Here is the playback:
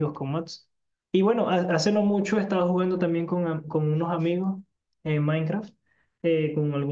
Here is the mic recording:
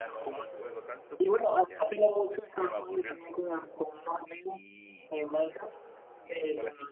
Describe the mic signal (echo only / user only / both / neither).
both